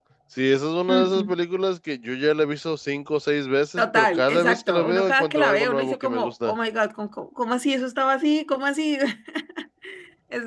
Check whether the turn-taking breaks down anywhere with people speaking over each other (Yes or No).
Yes